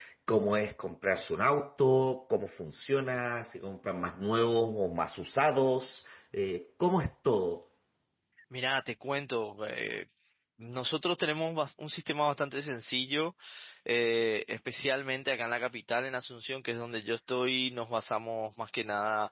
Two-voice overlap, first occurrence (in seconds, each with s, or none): none